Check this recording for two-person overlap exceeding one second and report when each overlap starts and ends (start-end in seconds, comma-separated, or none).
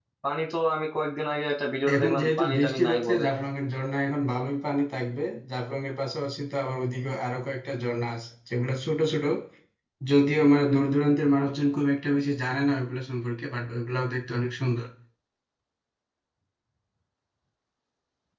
1.9-3.2